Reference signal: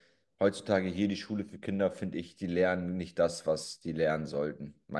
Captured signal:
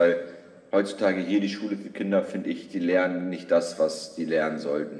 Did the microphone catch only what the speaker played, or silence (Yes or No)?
Yes